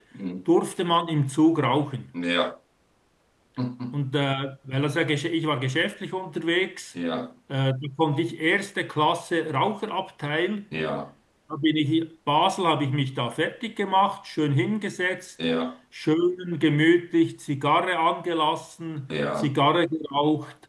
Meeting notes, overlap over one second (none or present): none